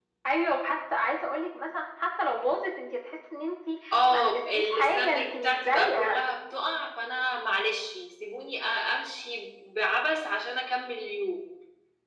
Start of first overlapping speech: 4 s

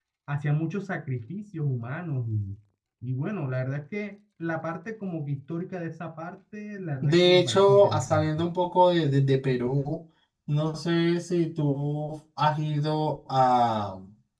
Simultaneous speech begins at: 7 s

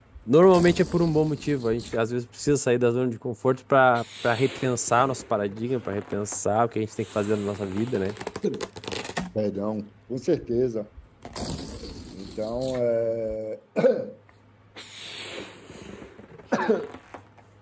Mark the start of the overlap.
none

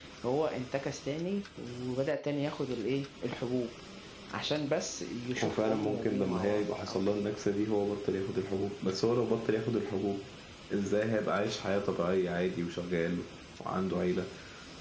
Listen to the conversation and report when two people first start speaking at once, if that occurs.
5 s

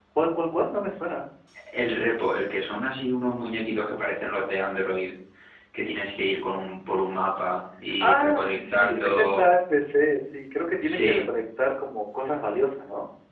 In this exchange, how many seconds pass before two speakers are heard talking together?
8 s

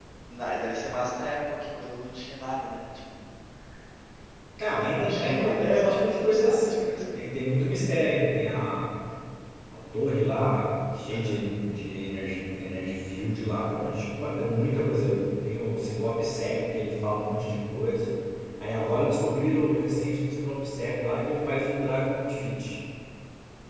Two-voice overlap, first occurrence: 5 s

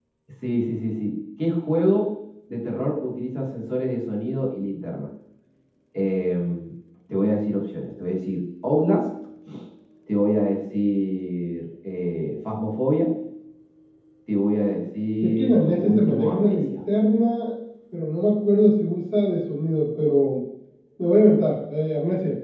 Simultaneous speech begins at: 15 s

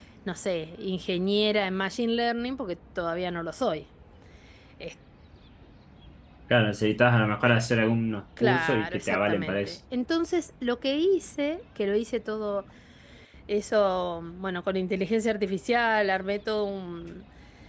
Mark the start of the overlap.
8 s

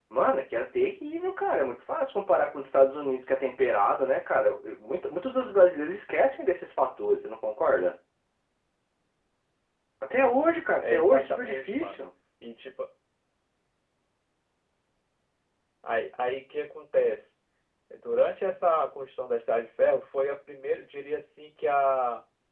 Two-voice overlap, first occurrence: 11 s

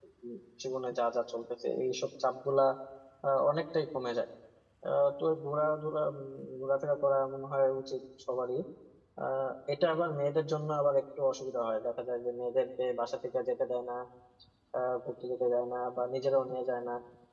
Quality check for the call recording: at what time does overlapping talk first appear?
none

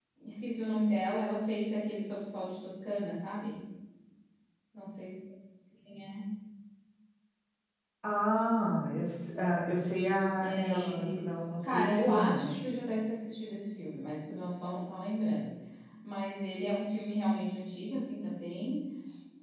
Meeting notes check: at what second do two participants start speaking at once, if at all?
10 s

